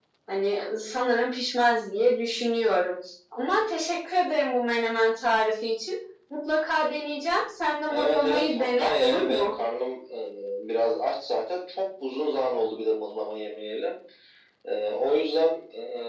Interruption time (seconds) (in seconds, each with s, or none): 7.9 s